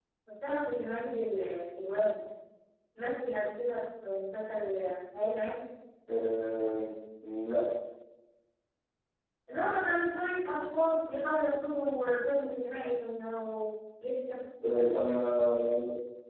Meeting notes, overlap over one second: none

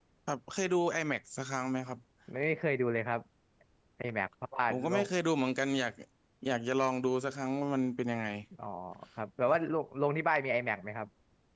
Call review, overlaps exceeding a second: none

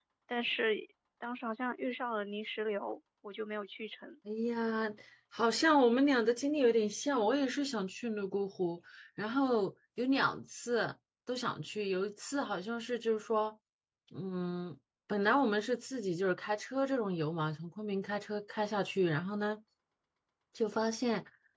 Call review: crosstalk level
none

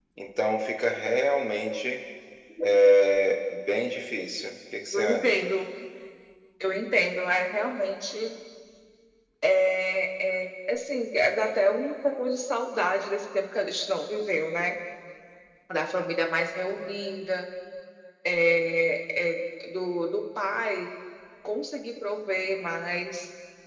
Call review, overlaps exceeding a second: none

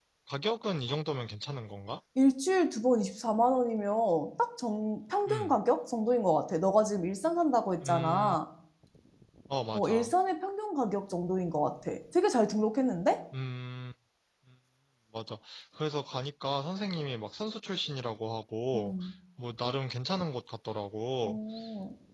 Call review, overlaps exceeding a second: none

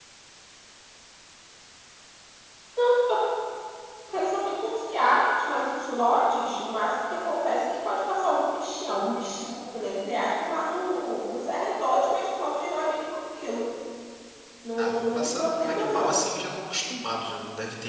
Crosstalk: present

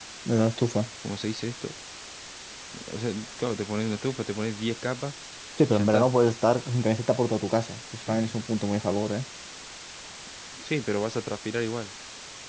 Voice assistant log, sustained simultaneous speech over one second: none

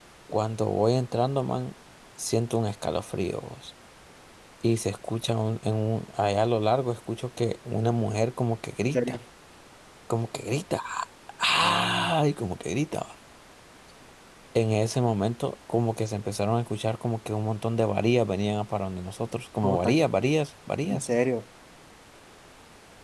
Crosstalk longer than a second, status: none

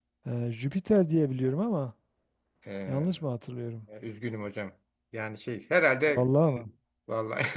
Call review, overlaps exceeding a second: none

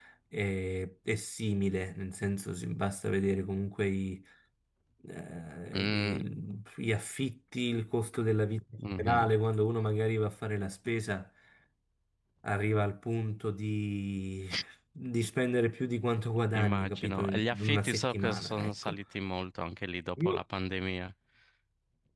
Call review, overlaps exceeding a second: present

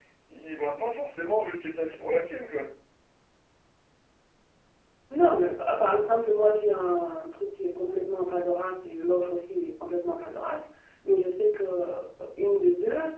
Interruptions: none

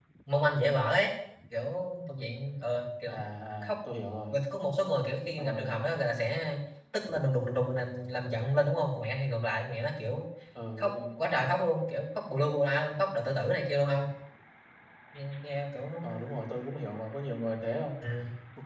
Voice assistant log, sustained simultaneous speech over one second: none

